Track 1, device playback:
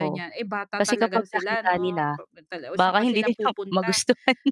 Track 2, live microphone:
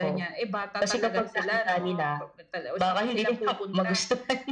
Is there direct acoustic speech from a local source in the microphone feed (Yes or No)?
No